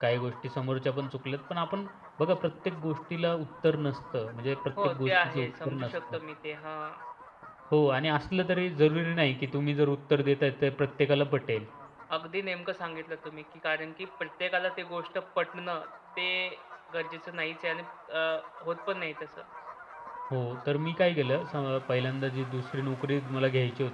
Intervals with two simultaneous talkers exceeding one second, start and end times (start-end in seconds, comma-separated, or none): 4.8-6.2